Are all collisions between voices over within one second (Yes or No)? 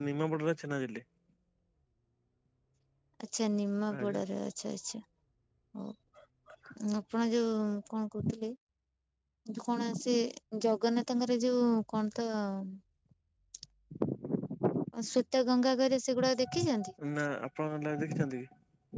Yes